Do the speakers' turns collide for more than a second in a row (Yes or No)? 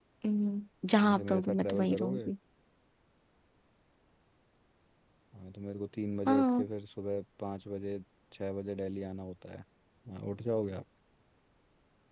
Yes